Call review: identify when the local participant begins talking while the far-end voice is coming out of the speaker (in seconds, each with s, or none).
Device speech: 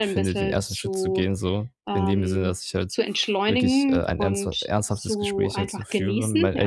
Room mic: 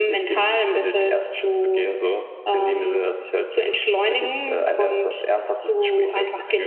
none